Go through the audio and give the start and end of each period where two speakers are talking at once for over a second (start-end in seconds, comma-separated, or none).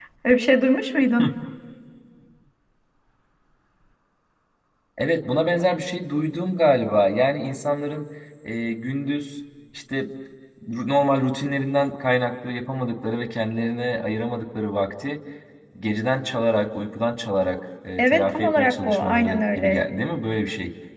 18.0-19.8